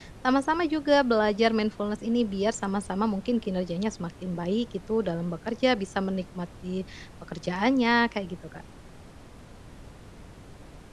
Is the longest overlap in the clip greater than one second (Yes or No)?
No